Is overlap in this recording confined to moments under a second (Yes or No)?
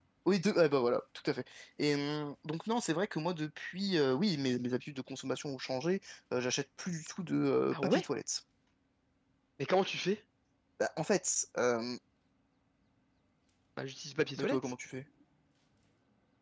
Yes